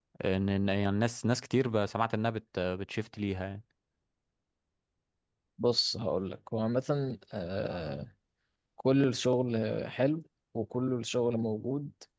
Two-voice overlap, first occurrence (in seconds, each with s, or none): none